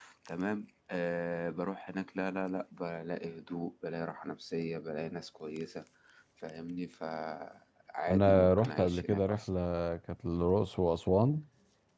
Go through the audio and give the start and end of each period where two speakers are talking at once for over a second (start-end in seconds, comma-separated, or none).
8.1-9.5